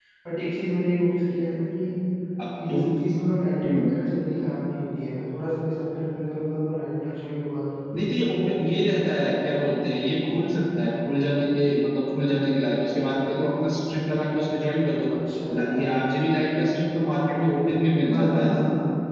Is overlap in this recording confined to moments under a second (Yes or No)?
Yes